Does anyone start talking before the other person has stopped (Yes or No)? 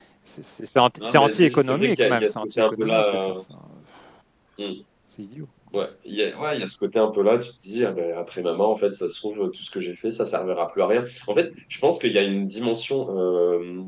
Yes